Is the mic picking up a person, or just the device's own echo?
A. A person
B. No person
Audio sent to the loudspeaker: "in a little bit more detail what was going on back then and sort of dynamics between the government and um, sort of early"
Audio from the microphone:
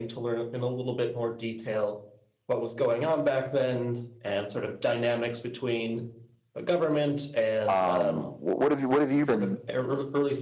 A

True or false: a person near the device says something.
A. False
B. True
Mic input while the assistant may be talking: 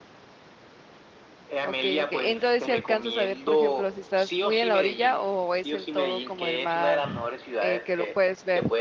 B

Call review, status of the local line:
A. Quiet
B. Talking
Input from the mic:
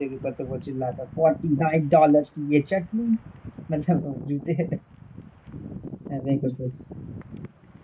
B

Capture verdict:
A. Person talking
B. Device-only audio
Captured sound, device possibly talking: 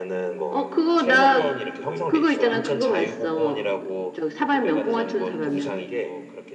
A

